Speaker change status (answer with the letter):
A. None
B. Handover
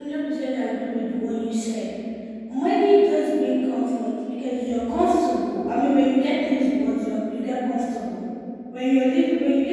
A